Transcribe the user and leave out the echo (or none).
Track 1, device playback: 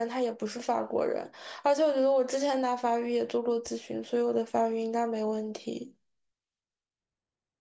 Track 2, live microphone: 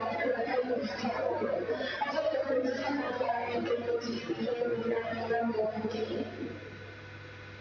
none